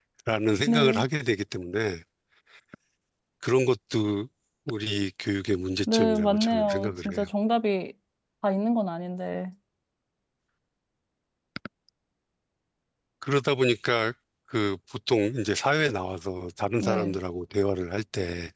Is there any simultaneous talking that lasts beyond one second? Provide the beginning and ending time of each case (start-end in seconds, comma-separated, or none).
5.9-7.3